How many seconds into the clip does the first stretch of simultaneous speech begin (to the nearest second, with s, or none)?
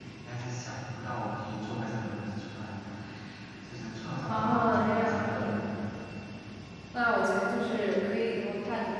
4 s